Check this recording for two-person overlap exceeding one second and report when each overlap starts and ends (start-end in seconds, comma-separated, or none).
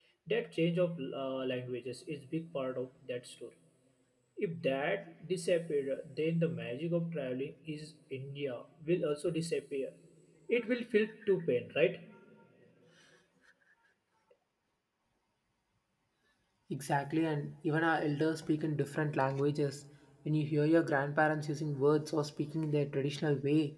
none